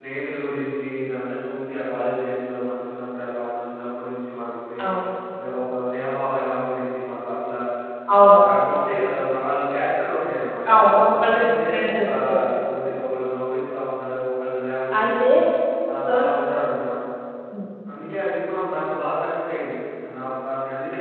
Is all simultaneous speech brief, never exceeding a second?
No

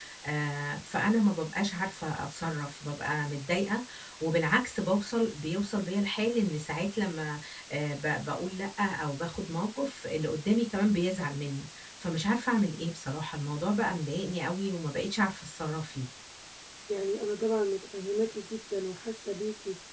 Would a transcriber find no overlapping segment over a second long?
Yes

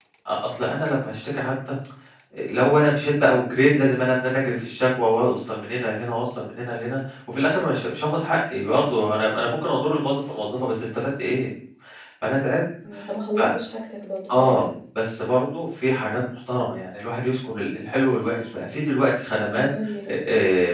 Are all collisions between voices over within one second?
Yes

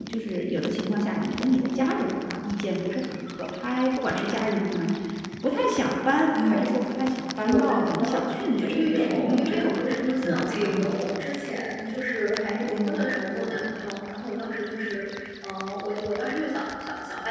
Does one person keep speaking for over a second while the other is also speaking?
Yes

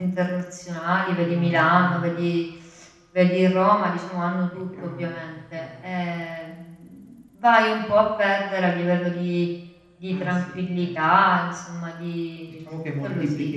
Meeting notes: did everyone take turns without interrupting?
No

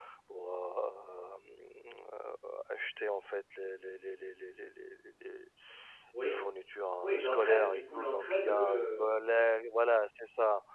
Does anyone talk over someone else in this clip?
Yes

